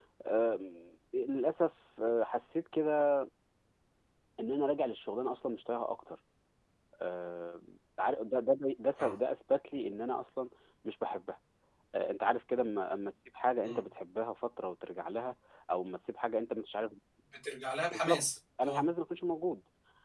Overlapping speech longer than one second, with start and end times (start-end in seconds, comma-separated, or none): none